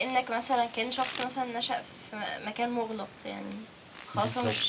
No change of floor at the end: Yes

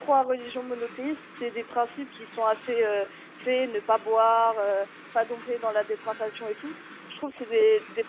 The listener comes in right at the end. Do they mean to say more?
No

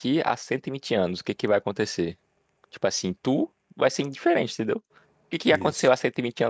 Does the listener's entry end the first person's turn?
No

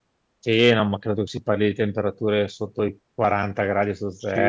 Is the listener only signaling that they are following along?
No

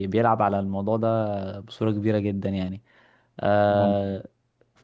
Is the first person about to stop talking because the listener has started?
No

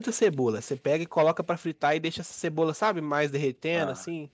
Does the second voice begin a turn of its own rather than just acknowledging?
No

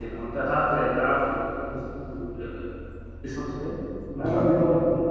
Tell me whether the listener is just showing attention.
Yes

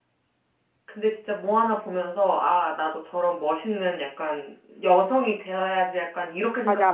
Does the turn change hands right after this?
Yes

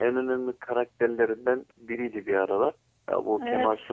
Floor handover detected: Yes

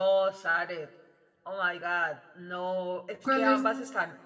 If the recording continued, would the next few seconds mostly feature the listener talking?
No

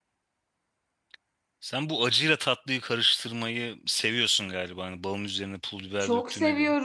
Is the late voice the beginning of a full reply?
Yes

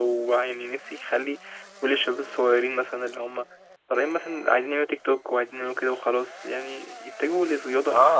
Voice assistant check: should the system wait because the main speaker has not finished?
No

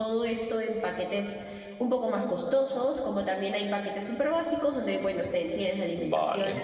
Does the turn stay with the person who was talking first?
Yes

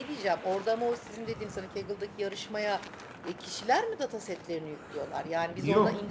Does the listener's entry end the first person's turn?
Yes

